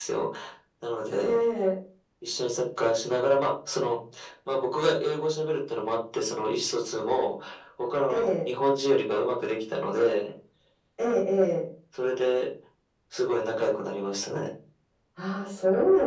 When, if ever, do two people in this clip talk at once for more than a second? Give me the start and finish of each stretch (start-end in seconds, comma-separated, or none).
none